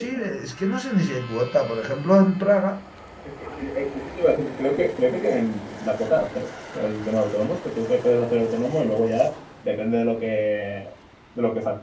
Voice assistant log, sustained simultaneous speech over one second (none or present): none